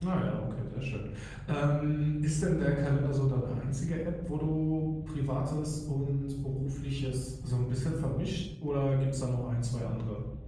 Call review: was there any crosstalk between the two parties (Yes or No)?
No